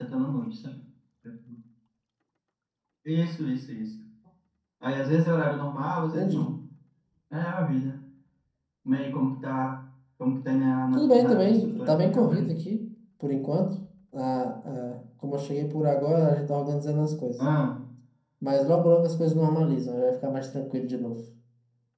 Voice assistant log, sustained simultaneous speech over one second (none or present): present